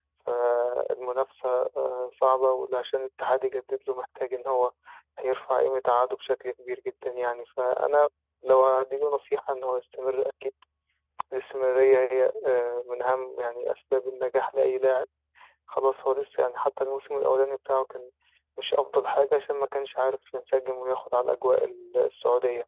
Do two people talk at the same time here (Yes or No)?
No